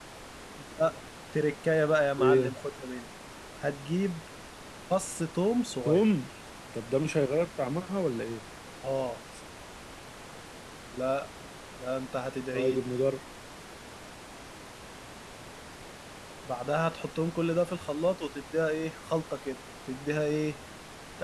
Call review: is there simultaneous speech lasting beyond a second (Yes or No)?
No